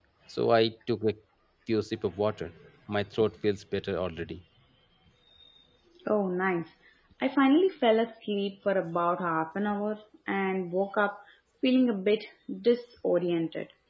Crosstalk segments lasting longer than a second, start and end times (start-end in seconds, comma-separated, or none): none